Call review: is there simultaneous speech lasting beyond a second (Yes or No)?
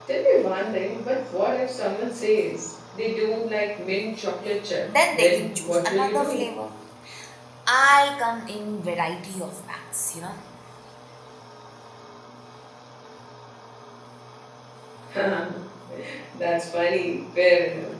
Yes